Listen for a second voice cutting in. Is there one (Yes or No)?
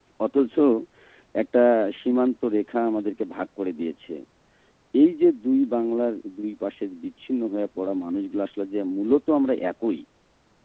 No